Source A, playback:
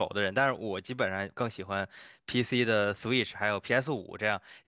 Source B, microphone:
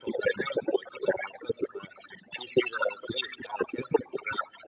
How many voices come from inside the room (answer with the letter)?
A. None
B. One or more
A